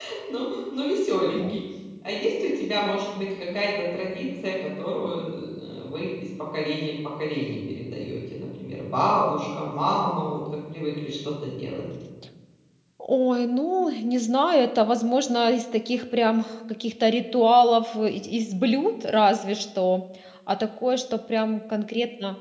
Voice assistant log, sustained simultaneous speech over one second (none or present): none